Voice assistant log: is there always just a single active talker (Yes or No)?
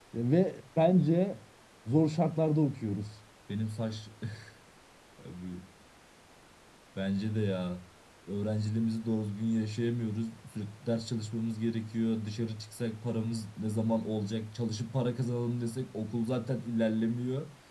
Yes